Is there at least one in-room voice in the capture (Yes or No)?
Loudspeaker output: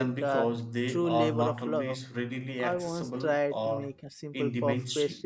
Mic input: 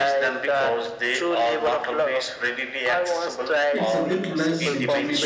Yes